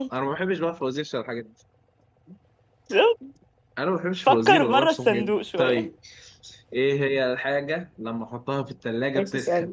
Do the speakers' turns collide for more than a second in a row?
Yes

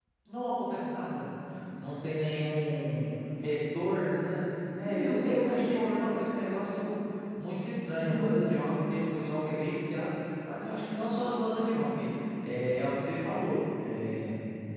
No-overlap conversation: No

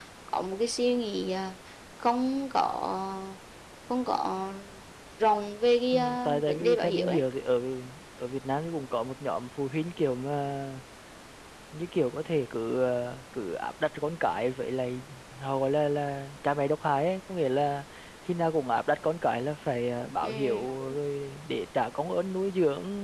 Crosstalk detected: Yes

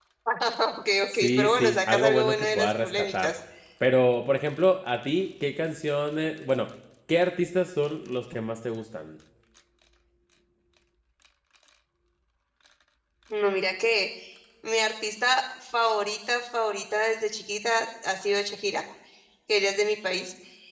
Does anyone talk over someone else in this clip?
Yes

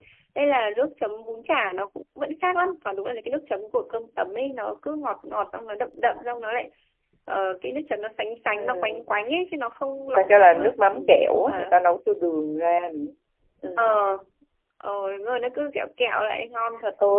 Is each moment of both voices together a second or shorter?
No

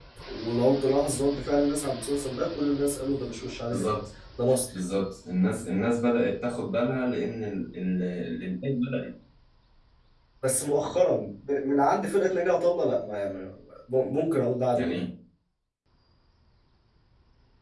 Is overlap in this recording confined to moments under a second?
Yes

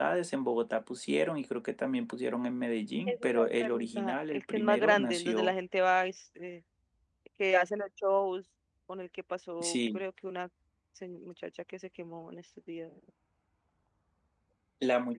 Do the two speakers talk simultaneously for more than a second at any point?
Yes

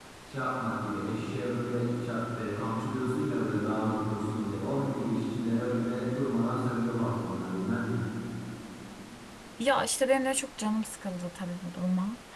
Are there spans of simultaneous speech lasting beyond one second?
No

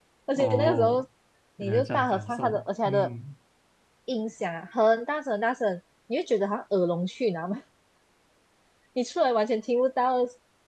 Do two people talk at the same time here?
Yes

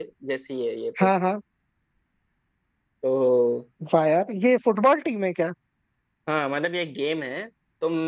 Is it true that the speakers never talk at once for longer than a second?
Yes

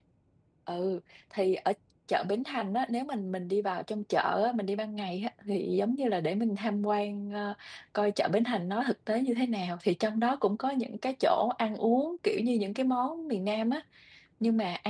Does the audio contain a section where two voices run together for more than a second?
No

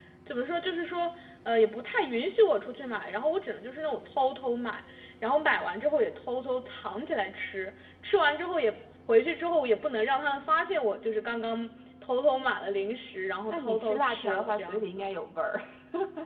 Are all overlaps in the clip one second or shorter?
No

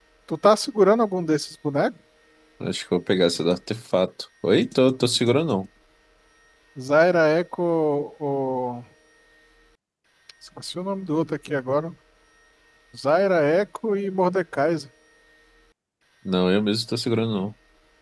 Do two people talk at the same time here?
No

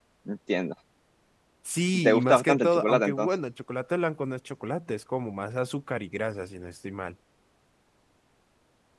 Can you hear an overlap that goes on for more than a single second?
Yes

